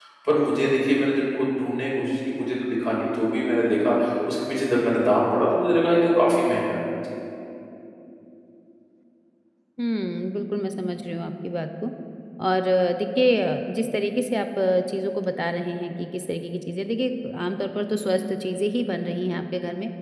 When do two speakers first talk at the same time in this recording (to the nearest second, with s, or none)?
none